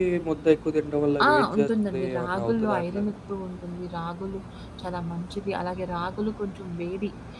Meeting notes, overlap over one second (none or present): present